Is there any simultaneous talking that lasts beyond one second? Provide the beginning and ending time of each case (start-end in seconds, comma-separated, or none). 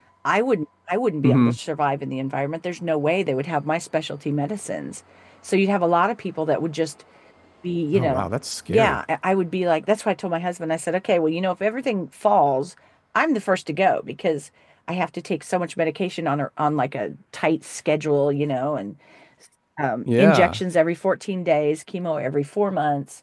none